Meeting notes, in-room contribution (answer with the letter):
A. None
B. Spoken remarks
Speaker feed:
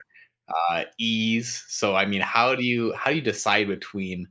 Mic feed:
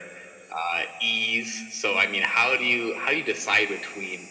A